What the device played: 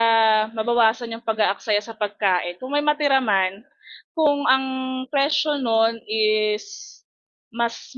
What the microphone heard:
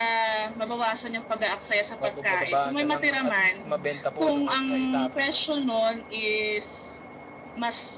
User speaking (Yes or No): Yes